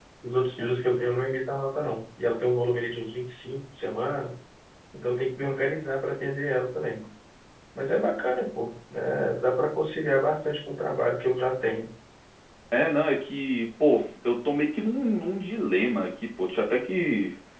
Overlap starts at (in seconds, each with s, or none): none